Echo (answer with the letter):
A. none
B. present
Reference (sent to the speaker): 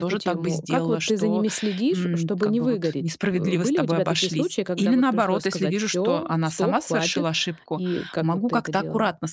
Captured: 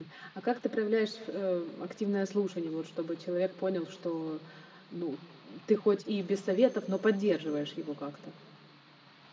A